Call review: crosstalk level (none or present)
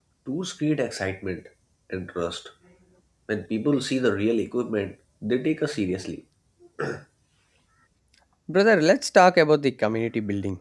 none